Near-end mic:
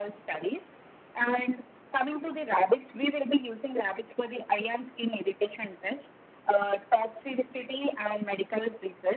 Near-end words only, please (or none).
none